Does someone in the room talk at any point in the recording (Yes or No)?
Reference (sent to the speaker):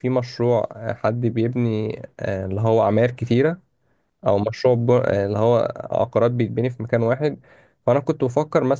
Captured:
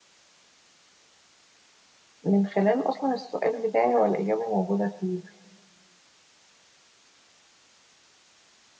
Yes